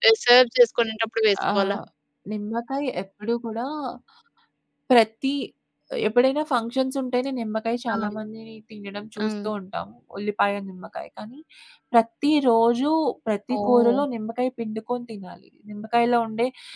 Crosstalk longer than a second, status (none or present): none